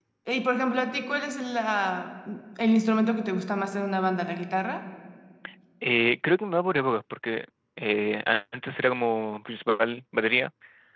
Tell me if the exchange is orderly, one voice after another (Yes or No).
Yes